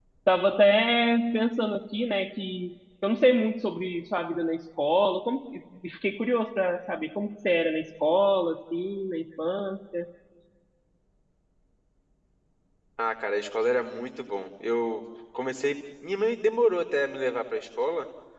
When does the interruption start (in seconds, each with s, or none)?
none